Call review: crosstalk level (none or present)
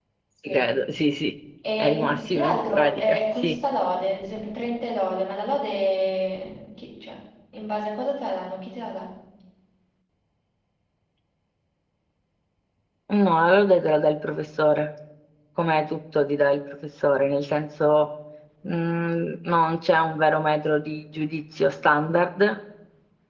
present